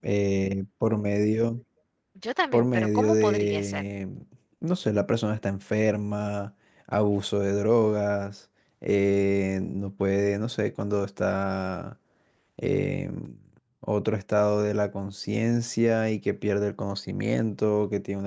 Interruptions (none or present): present